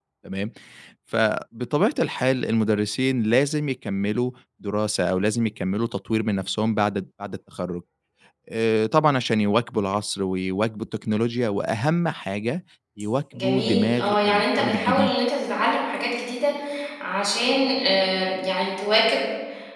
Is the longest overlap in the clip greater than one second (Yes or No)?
Yes